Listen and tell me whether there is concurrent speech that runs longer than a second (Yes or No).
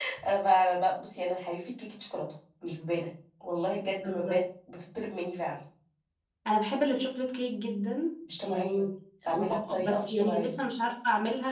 Yes